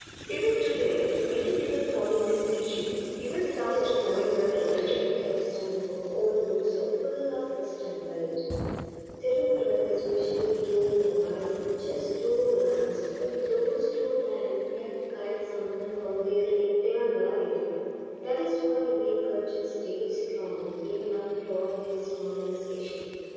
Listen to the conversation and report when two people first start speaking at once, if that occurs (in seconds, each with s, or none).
3.6 s